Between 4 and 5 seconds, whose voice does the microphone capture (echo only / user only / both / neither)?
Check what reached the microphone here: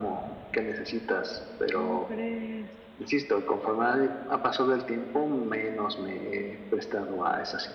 echo only